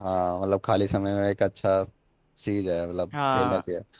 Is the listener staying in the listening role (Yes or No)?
No